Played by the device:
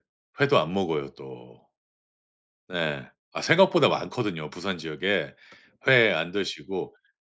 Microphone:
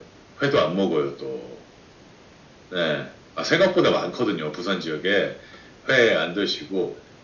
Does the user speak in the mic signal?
No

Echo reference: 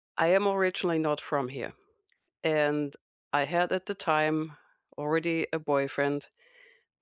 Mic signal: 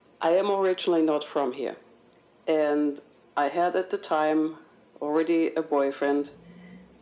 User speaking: No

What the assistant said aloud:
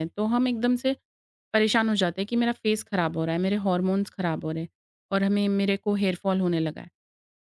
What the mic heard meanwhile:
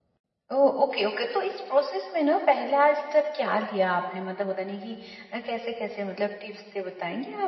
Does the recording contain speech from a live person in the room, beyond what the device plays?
Yes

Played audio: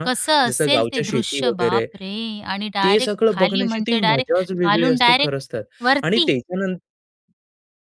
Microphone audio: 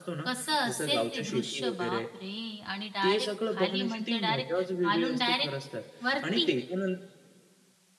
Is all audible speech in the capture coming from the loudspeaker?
Yes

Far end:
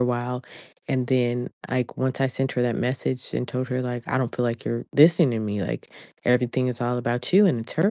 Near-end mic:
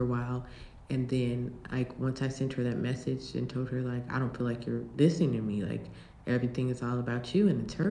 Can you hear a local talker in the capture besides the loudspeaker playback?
No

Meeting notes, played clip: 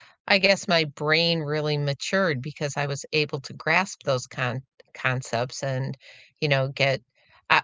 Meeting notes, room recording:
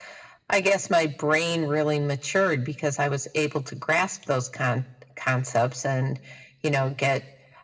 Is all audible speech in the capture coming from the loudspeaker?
Yes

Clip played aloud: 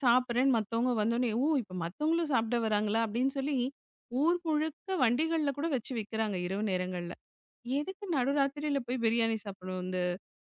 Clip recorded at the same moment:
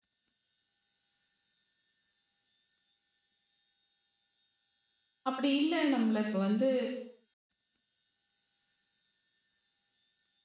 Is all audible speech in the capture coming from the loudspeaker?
No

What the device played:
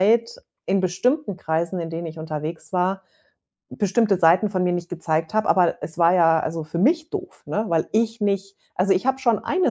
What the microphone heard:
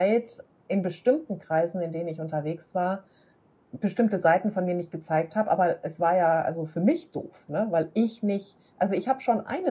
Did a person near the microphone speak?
No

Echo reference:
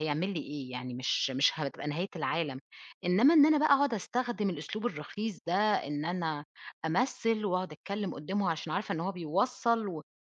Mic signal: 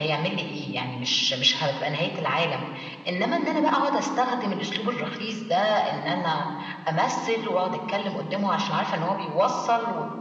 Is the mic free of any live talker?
Yes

